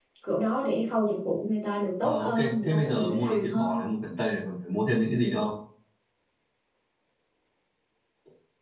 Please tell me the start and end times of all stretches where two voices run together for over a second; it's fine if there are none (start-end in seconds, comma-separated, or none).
2.0-3.8